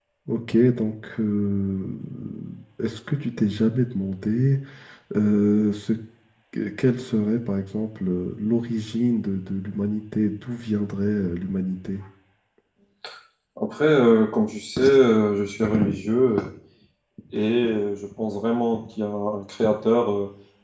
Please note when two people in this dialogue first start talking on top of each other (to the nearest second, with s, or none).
none